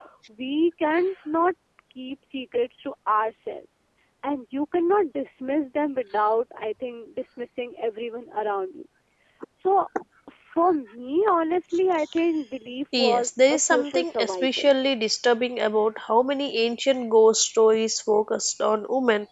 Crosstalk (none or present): present